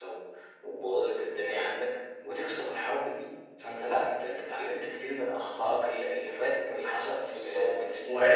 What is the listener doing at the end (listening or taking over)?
taking over